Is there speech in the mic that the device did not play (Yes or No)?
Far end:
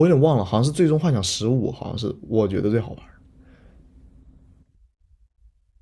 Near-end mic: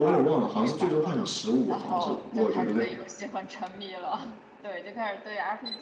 Yes